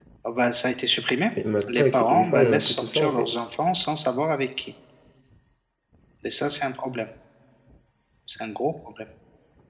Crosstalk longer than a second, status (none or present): present